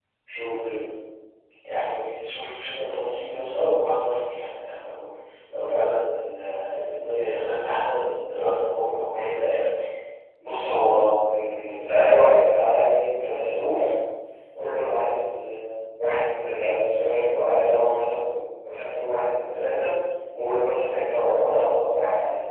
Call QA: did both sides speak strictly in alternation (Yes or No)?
Yes